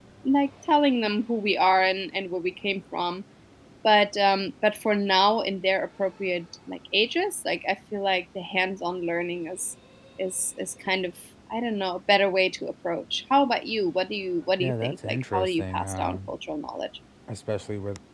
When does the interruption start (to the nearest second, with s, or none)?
15 s